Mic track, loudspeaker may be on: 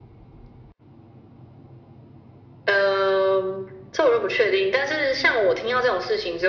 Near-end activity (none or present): none